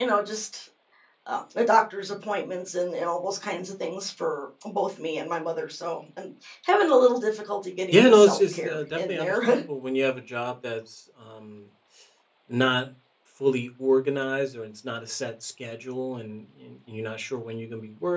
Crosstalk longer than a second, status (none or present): present